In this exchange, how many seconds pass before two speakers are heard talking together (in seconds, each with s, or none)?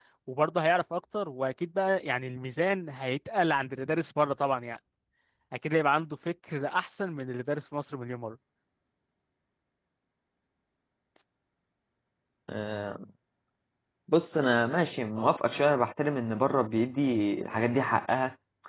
none